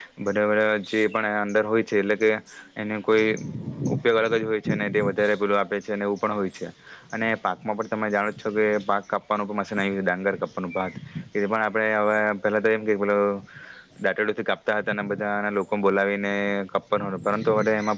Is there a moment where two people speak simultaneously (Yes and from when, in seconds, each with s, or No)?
No